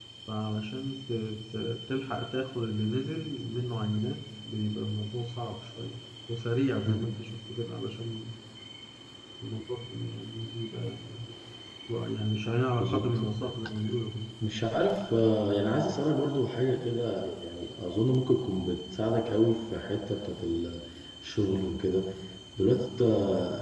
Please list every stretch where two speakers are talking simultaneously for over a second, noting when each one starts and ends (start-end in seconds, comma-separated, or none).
none